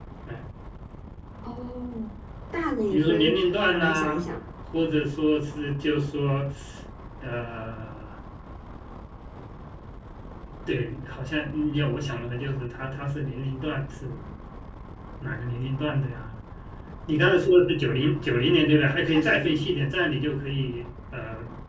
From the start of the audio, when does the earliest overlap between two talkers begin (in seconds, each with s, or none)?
2.9 s